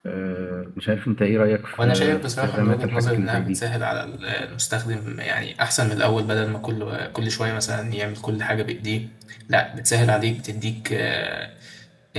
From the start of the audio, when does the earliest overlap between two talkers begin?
1.7 s

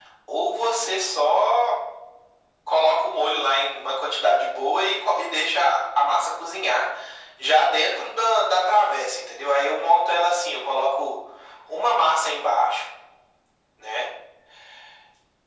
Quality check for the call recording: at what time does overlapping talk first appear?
none

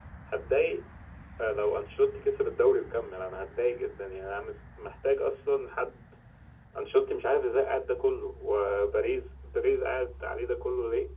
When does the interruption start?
none

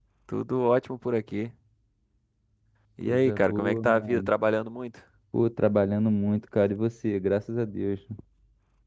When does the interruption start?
3.0 s

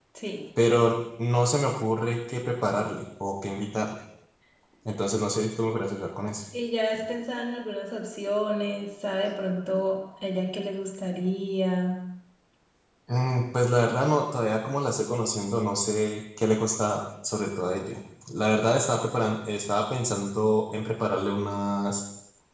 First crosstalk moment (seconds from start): none

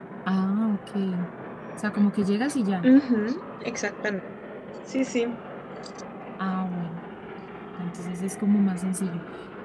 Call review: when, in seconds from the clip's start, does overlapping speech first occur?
none

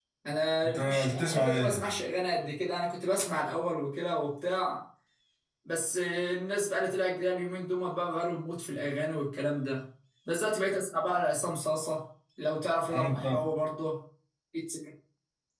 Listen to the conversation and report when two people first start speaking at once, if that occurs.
0.6 s

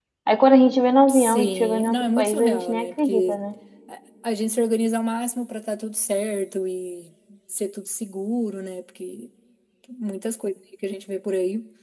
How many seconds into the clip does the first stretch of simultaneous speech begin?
1.1 s

